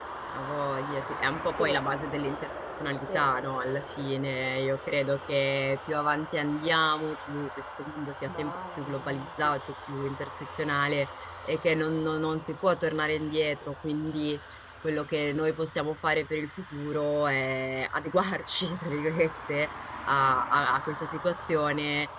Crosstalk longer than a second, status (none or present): present